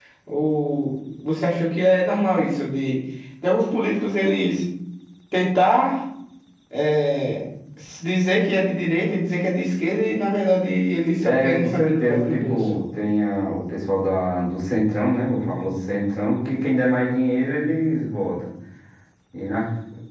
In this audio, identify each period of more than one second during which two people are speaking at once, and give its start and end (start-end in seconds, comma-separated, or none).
11.2-12.6